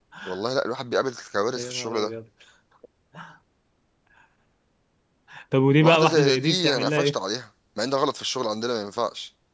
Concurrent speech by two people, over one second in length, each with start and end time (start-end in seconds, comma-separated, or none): 5.8-7.1